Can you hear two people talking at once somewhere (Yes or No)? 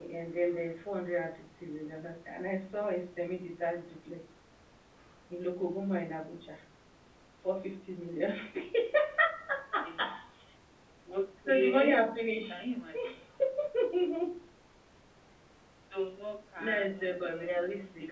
Yes